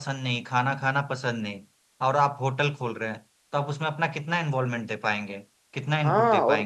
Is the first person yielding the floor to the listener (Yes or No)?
Yes